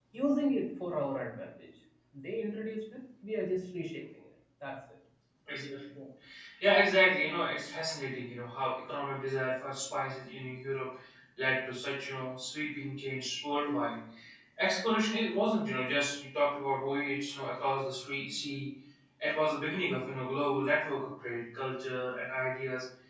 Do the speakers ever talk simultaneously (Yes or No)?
No